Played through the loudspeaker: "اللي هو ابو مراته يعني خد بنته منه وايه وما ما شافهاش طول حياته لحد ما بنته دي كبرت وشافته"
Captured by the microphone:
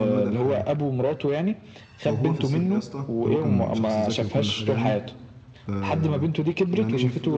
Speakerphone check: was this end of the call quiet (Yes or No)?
No